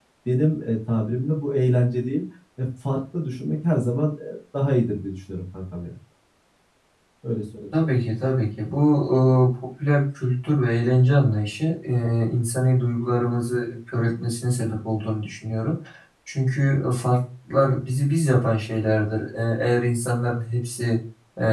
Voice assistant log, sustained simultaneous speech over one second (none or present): none